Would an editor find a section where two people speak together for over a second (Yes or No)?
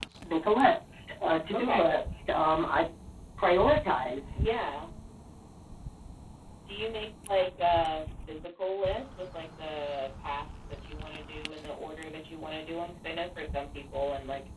No